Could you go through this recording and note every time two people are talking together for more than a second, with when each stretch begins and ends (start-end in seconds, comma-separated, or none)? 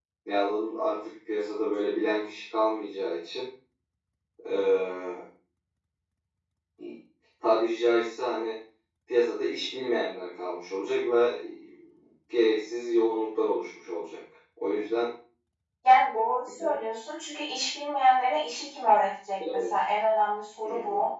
none